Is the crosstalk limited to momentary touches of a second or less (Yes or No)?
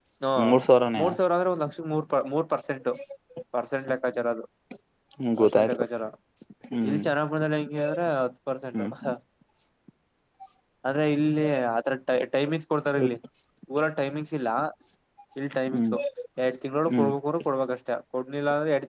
Yes